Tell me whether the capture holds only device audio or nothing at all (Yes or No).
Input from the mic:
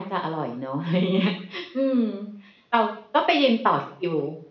Yes